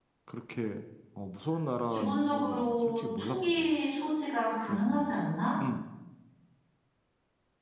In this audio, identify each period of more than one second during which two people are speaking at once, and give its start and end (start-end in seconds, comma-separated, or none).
1.9-3.8